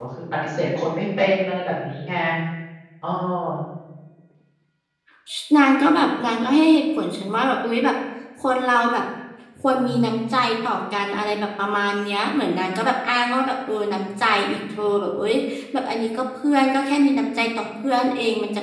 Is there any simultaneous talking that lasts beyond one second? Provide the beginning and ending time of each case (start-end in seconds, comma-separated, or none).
none